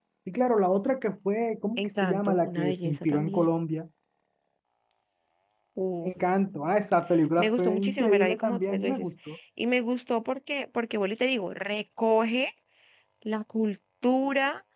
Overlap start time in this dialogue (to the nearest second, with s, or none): 2 s